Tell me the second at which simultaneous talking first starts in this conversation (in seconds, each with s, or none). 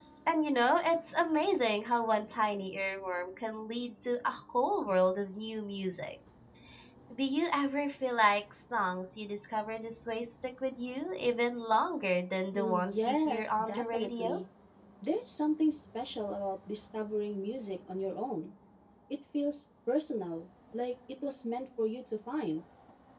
12.5 s